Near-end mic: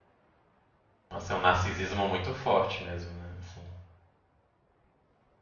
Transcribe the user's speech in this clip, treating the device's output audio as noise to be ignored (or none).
Nossa, é um narcisismo muito forte mesmo, né? Assim.